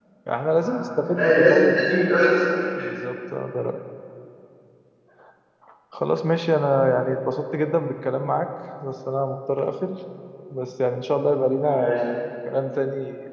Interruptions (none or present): present